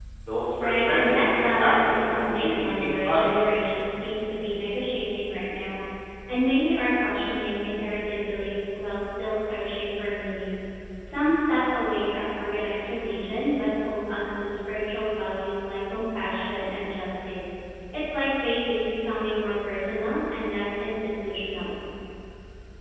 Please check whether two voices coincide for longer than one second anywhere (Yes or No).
Yes